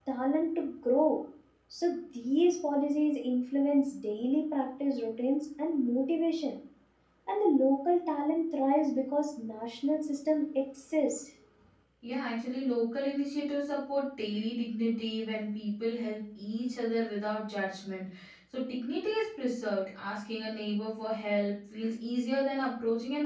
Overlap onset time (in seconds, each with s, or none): none